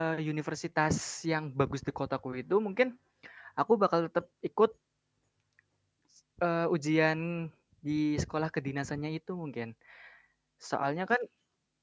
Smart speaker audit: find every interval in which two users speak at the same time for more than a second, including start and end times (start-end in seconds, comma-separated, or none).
none